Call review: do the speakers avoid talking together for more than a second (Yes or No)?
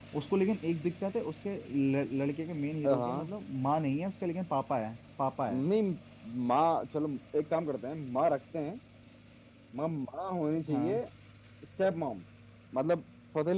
Yes